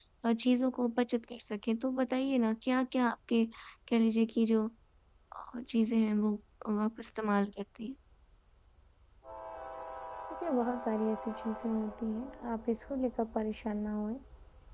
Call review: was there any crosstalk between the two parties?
No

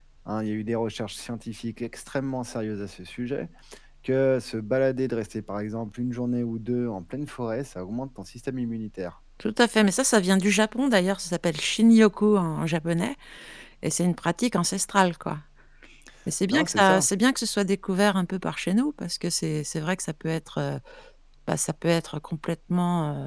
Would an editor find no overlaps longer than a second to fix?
Yes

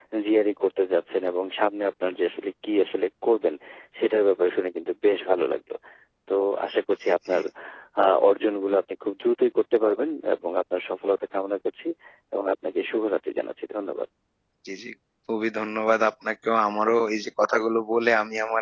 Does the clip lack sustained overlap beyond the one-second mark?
Yes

